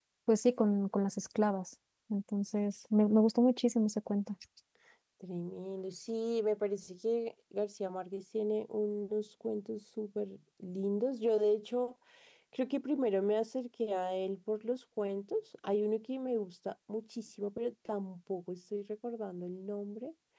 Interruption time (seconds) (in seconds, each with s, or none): none